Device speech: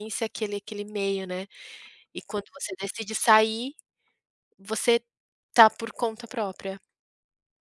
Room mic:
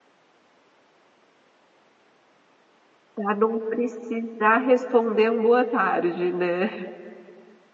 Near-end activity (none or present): present